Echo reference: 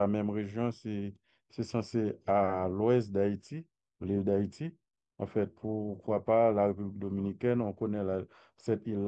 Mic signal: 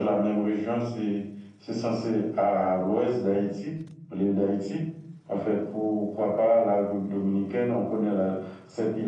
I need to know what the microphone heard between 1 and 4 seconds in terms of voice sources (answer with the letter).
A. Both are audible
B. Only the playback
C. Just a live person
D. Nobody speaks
B